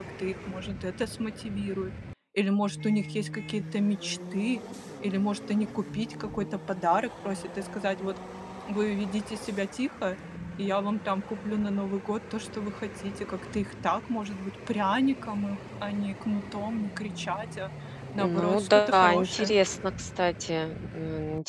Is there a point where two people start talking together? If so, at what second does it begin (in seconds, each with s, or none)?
18.2 s